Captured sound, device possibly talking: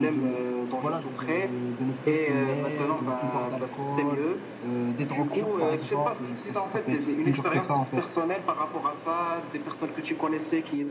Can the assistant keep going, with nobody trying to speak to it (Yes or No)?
No